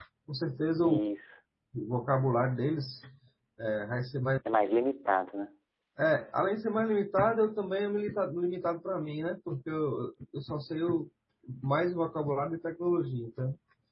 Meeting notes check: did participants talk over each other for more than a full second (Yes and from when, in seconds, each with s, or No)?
No